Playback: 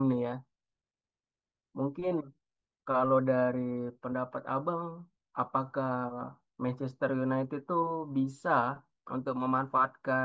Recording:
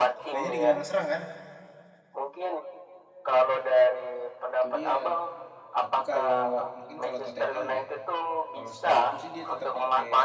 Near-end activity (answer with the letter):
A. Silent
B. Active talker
B